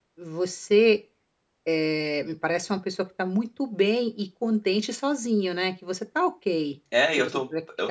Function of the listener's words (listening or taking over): taking over